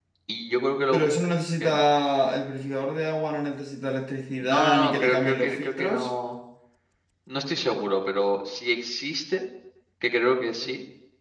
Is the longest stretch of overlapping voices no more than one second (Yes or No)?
No